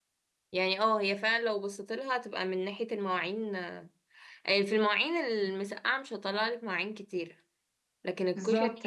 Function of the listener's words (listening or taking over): listening